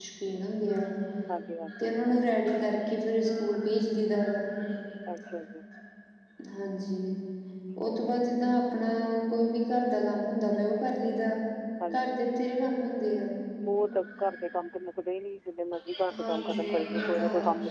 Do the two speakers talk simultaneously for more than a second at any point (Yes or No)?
Yes